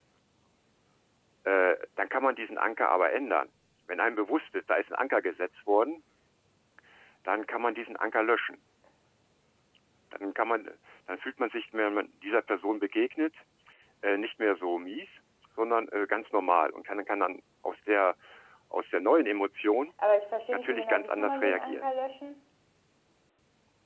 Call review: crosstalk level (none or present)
present